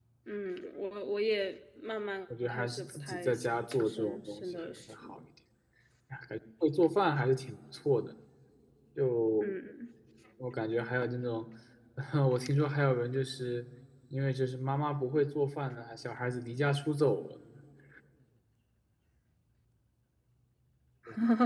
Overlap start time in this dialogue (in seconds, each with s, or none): 2.3 s